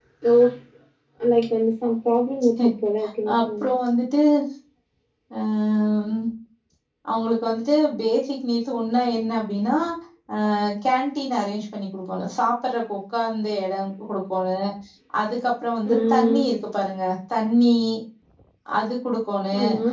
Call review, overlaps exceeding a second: none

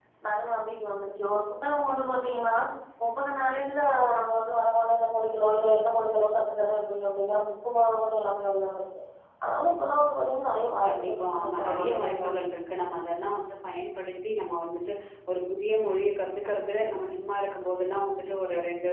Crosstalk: present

